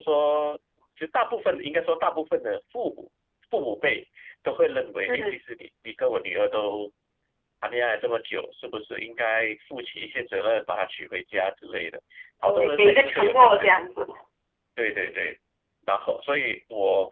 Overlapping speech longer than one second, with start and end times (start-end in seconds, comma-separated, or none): 12.4-13.7